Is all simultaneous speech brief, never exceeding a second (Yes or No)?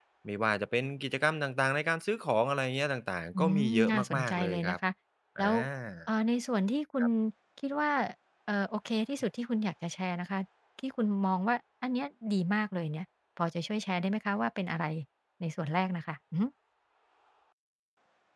No